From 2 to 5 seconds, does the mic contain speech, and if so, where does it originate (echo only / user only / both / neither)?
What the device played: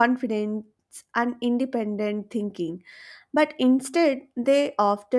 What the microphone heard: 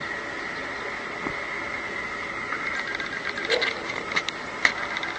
neither